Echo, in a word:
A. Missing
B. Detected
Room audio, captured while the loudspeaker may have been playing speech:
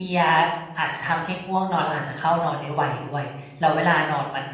A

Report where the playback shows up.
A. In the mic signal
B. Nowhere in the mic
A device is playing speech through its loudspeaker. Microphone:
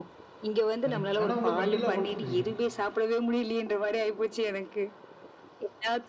A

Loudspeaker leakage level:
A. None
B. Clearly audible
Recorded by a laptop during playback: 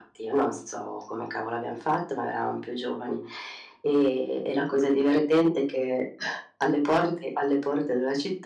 B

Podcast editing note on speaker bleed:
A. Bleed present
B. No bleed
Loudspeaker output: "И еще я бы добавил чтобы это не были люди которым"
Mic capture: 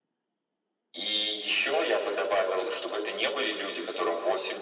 A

